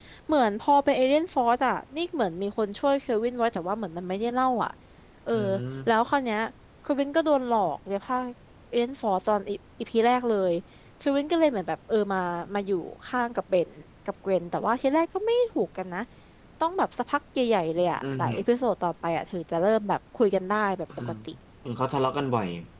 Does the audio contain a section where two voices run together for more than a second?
No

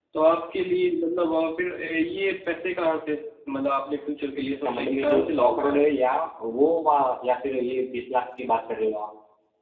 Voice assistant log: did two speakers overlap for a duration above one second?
Yes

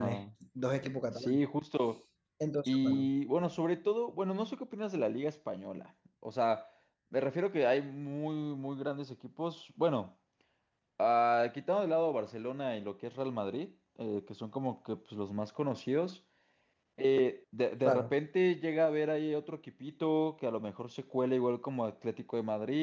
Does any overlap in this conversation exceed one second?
No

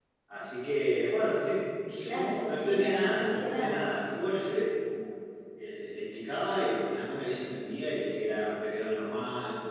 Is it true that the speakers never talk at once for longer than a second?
No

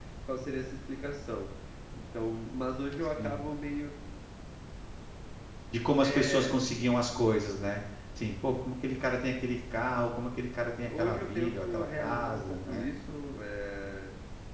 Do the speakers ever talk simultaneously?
Yes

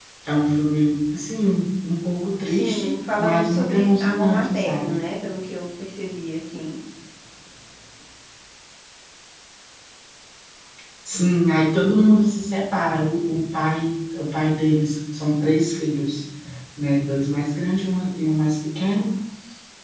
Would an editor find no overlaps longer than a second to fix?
No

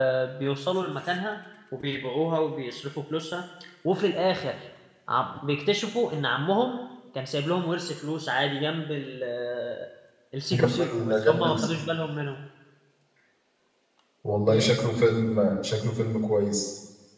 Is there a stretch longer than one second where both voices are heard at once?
Yes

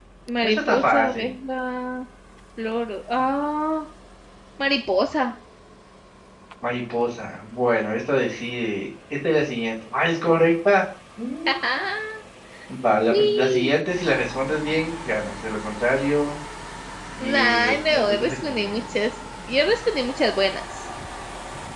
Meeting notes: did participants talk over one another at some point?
Yes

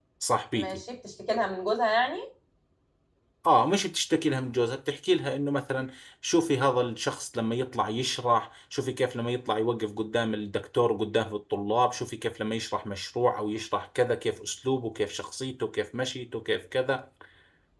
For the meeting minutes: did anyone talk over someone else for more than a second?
No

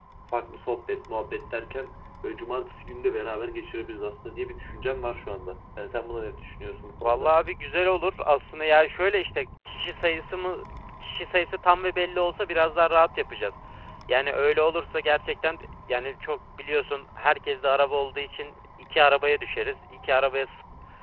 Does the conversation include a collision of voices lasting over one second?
No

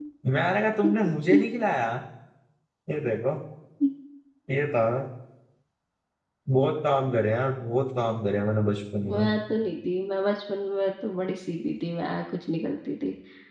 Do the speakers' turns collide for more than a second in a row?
No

